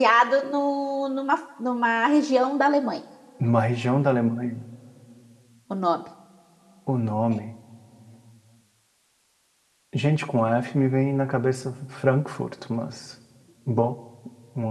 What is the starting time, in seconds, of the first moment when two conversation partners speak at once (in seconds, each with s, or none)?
none